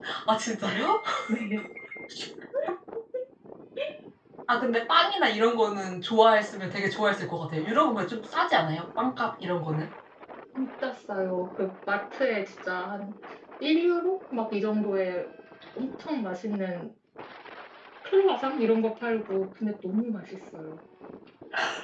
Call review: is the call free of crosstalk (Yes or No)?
Yes